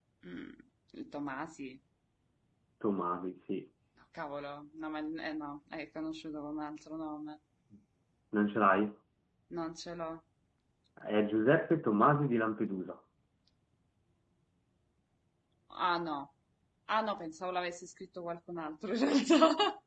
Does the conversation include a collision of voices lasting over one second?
No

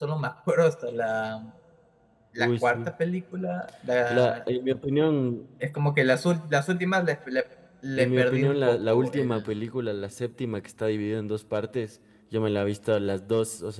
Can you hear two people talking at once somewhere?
Yes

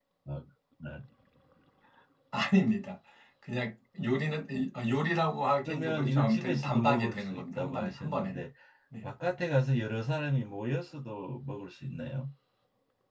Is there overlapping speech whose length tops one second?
Yes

